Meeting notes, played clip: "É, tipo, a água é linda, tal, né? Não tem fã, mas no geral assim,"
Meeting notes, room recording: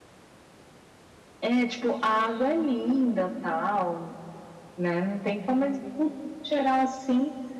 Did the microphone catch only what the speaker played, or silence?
Yes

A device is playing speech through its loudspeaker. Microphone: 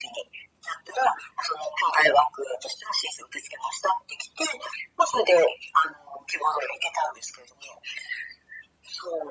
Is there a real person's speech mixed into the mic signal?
No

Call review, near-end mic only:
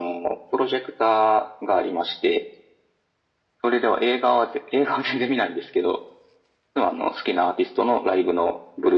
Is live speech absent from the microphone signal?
Yes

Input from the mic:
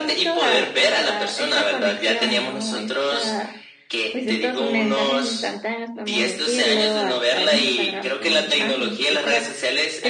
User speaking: Yes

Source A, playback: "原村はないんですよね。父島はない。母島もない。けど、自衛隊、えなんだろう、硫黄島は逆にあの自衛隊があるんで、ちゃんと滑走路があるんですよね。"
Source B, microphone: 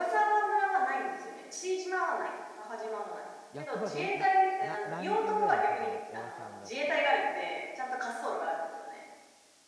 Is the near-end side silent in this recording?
No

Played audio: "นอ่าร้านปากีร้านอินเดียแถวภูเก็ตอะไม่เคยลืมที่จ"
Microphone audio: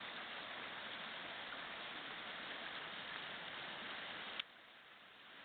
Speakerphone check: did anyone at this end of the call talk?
No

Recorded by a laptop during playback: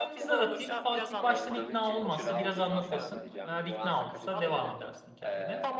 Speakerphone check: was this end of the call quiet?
No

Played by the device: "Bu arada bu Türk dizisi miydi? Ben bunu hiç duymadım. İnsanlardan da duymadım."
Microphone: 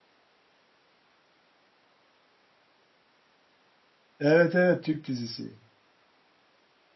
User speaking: Yes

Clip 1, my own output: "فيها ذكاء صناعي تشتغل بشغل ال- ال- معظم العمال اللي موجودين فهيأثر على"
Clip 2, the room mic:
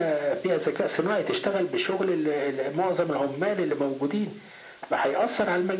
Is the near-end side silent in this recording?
Yes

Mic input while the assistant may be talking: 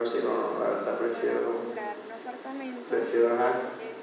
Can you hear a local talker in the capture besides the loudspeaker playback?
Yes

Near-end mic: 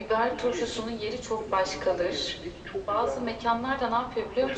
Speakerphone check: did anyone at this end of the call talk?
No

